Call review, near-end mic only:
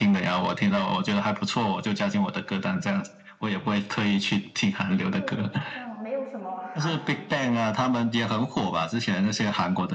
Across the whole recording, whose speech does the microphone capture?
both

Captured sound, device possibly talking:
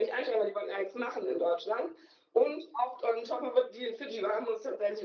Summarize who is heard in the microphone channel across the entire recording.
echo only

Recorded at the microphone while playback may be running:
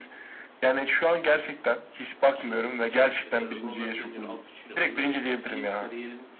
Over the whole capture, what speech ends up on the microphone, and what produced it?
both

